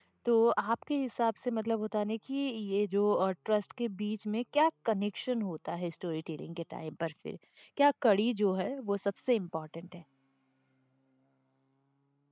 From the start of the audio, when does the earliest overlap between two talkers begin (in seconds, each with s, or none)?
none